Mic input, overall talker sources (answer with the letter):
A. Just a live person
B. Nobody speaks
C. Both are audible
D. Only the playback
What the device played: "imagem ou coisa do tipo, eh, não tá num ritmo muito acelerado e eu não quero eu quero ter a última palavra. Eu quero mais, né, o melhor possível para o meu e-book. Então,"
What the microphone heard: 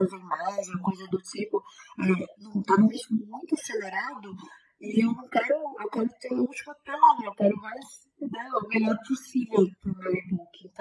D